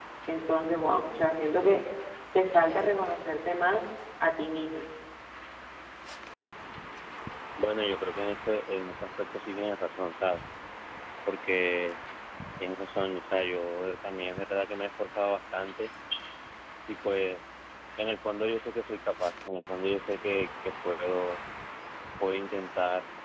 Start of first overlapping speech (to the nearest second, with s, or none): none